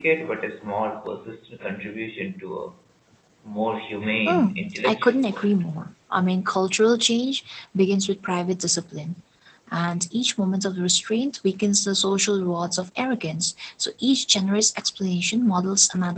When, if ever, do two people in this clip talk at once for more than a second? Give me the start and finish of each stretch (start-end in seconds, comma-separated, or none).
4.2-5.5